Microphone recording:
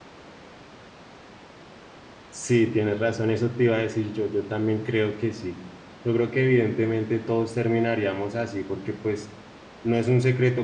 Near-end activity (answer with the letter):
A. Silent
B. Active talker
B